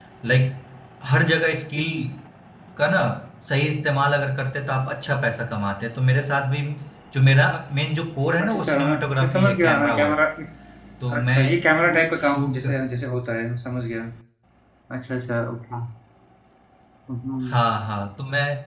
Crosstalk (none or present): present